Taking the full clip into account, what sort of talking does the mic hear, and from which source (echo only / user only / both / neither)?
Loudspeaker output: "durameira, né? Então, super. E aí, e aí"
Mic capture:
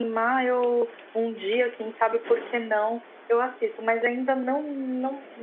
user only